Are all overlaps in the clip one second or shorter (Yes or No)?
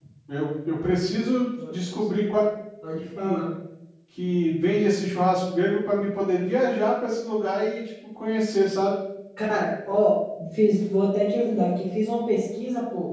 Yes